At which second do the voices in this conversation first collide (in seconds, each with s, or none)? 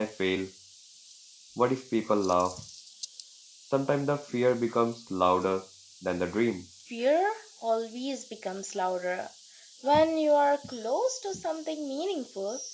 none